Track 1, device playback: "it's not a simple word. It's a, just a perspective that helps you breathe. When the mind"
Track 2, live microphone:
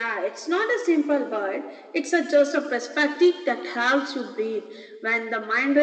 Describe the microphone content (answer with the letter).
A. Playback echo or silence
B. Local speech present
A